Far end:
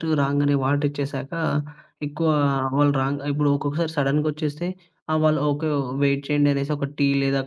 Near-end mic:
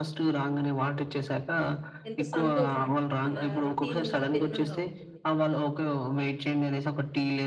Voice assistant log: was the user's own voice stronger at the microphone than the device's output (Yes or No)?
No